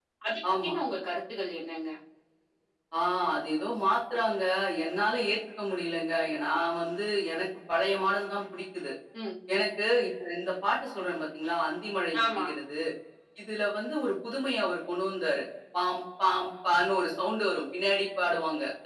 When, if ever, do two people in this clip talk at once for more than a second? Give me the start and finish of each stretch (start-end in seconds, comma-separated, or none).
none